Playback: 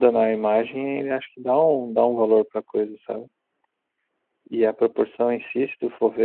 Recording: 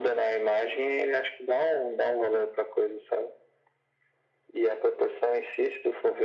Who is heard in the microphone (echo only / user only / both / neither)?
echo only